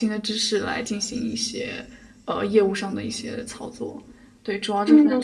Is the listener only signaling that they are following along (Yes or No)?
No